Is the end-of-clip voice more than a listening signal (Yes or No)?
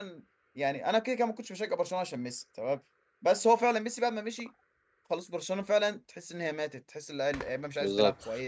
Yes